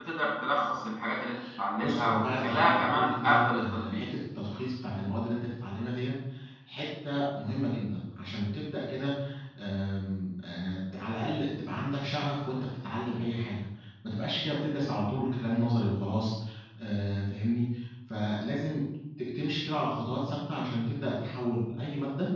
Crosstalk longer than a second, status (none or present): present